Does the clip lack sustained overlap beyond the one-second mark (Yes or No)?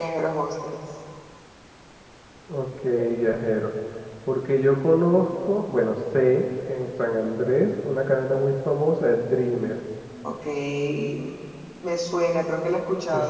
Yes